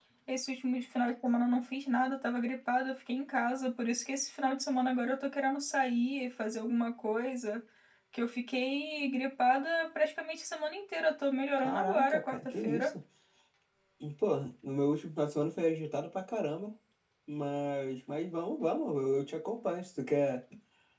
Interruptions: present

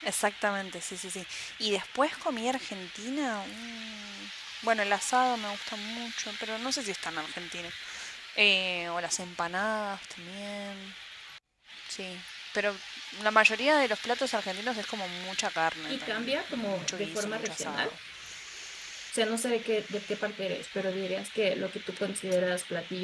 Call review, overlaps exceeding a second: present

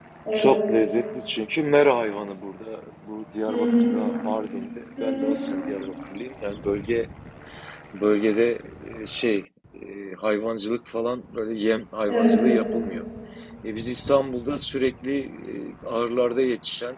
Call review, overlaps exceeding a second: none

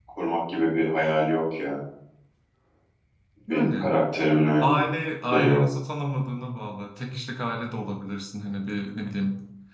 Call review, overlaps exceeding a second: none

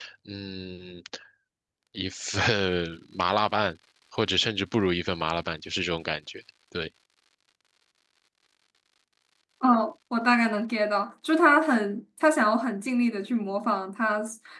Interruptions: none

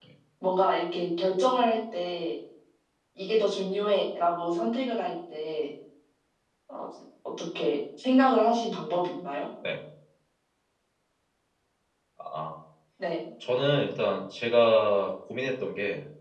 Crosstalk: none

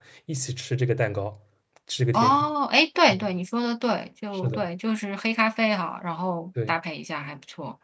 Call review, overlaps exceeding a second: none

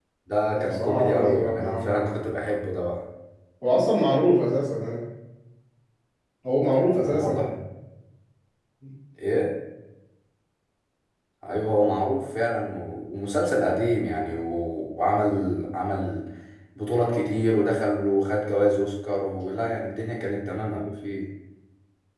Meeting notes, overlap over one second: present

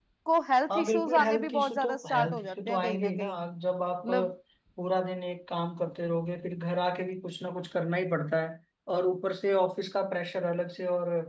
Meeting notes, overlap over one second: present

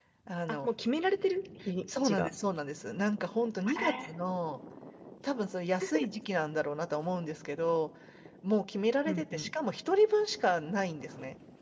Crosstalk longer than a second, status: none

